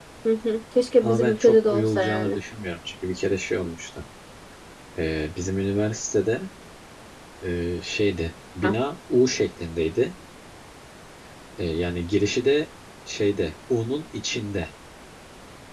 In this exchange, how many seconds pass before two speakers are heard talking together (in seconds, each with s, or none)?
1.0 s